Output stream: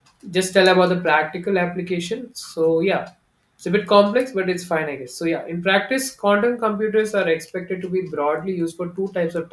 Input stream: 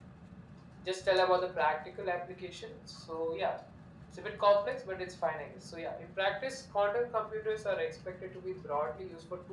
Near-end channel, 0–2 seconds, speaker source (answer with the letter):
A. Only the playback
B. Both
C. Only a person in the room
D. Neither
A